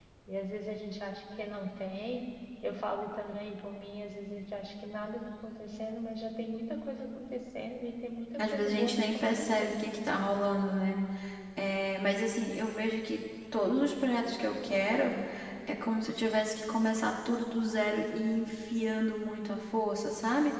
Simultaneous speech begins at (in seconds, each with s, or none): 8.4 s